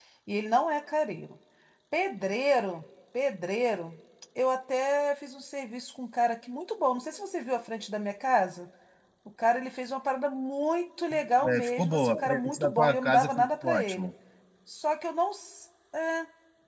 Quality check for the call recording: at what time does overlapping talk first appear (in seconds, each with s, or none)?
11.4 s